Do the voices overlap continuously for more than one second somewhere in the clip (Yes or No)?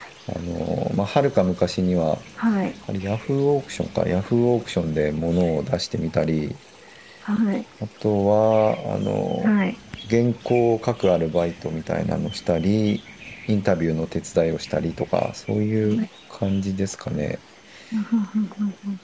No